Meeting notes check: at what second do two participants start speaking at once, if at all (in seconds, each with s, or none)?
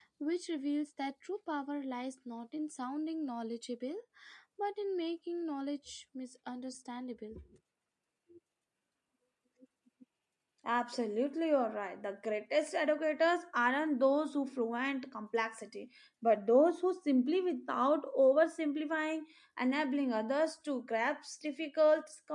none